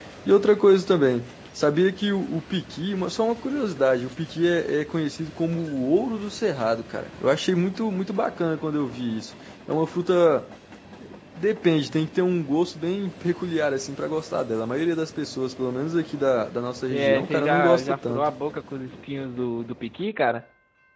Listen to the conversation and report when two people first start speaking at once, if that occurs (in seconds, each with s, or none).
16.9 s